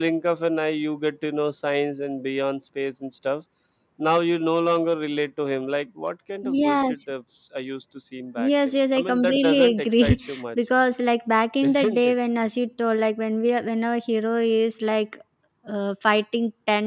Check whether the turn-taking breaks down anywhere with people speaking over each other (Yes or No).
Yes